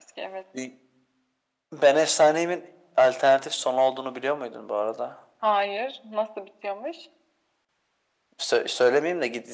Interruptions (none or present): none